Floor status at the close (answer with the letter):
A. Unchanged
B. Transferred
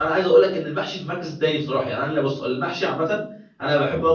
A